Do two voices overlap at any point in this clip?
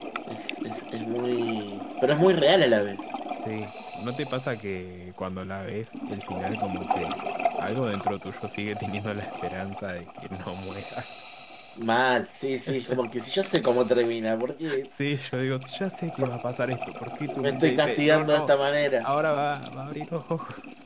Yes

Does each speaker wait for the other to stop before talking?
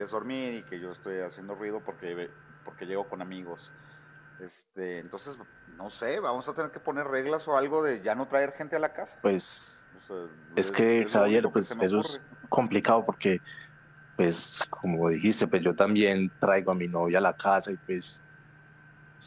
No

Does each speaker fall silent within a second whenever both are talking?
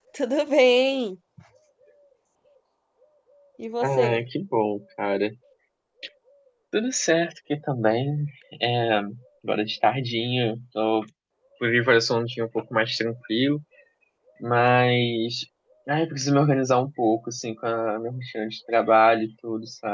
Yes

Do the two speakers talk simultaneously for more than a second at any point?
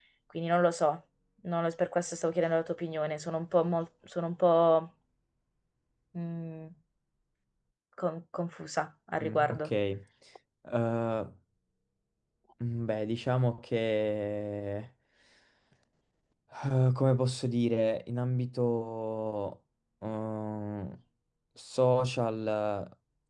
No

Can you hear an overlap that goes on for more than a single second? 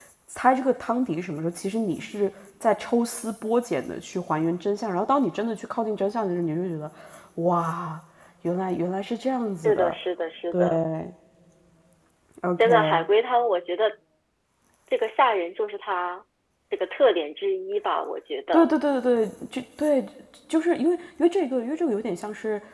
No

